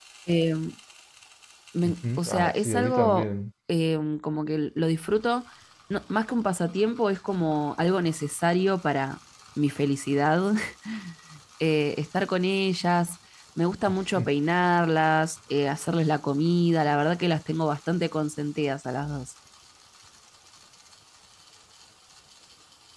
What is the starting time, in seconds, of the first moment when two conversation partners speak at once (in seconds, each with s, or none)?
1.8 s